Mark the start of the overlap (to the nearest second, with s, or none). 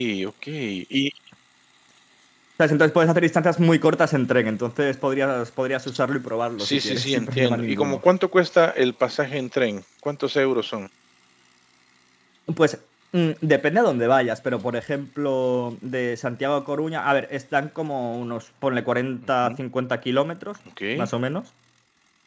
7 s